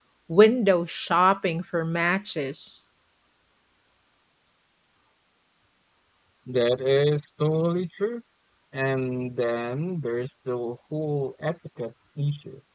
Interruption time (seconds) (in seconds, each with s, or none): none